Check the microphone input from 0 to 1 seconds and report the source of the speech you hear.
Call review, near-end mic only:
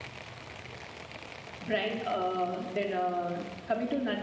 neither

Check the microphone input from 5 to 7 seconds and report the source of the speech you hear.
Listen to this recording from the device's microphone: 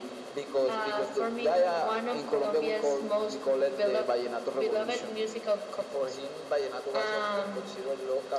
echo only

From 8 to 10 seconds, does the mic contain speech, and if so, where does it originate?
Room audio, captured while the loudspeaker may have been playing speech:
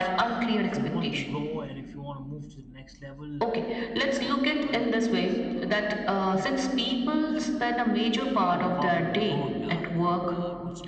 both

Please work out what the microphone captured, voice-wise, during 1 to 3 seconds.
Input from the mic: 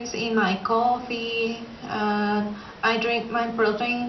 echo only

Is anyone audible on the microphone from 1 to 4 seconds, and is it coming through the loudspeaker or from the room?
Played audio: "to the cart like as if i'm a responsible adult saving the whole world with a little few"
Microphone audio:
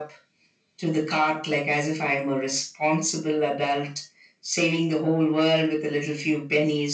echo only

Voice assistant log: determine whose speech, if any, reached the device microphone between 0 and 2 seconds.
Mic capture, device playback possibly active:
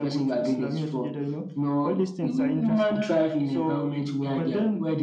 echo only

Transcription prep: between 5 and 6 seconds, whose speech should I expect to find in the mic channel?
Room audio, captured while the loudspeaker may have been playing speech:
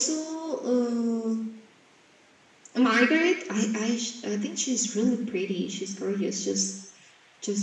echo only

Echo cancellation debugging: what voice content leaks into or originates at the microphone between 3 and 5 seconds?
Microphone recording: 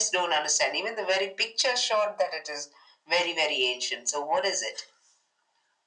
echo only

